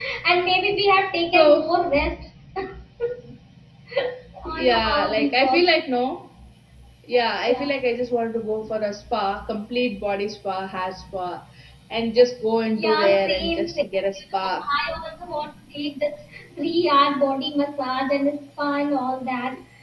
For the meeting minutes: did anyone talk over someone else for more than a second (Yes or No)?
Yes